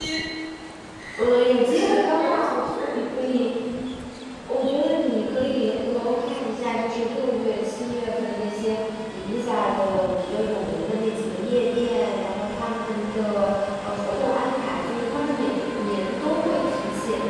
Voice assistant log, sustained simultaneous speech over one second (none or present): present